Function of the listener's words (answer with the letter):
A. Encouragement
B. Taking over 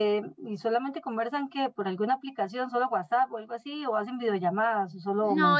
B